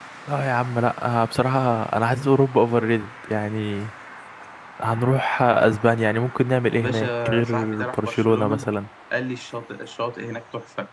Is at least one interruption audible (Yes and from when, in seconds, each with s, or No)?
Yes, from 6.7 s